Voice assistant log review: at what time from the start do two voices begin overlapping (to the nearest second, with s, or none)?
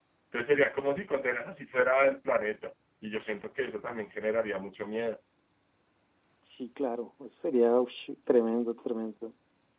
none